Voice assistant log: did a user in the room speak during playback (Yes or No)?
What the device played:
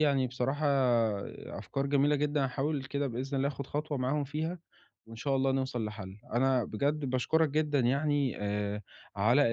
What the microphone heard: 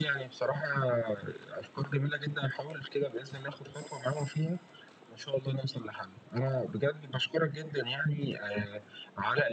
No